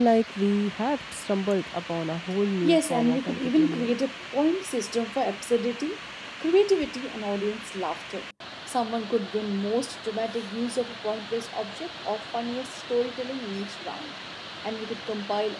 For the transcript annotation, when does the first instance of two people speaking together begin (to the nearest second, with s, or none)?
3 s